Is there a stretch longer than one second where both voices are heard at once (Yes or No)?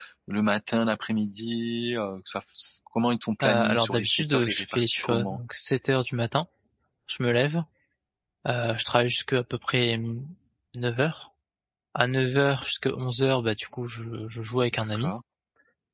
Yes